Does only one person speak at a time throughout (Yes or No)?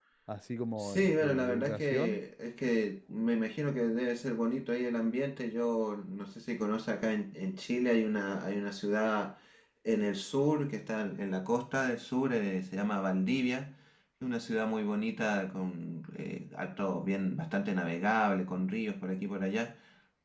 No